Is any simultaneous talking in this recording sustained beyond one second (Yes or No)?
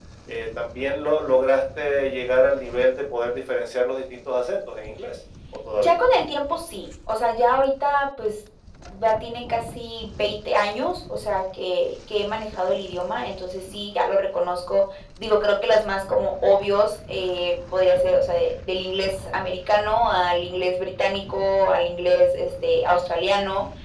No